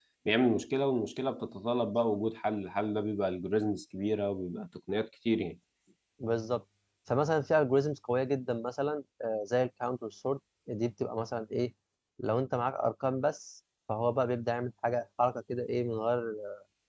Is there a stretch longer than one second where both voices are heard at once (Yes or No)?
No